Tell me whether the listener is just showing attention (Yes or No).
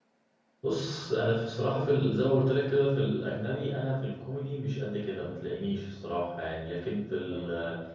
Yes